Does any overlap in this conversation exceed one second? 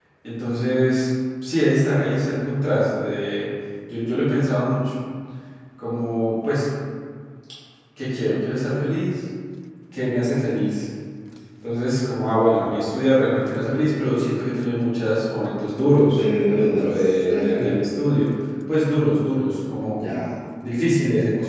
Yes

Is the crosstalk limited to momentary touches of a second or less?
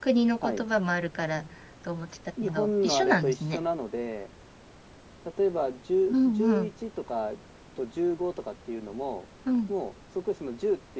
No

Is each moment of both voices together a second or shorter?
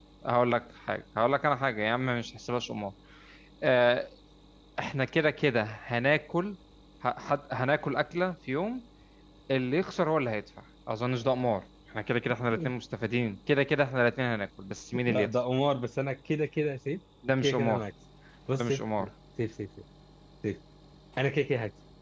Yes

